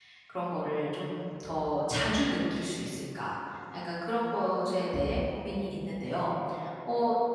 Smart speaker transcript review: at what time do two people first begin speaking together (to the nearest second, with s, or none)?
none